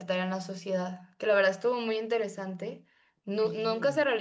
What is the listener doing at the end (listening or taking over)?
listening